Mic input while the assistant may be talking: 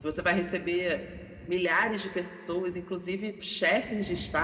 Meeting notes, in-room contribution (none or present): none